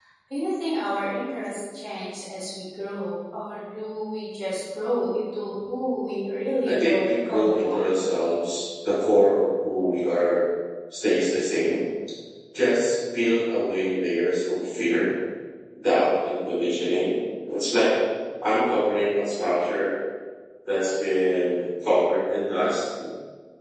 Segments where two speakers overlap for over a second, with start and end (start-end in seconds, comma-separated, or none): 6.7-7.9